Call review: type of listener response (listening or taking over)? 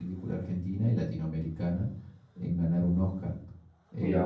listening